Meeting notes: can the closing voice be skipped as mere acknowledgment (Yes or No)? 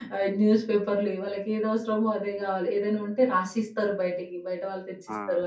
Yes